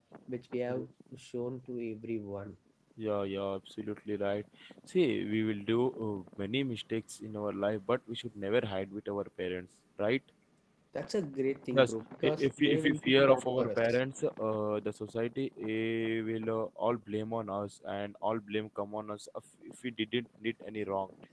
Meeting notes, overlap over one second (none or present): present